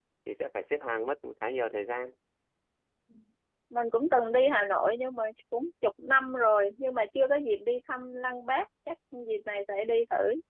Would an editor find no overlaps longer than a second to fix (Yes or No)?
Yes